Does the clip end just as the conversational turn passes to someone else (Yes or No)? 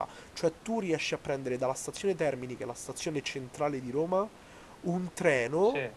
No